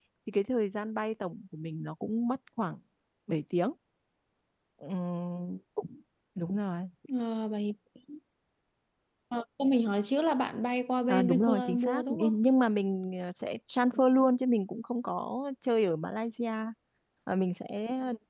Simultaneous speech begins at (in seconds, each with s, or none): 11.1 s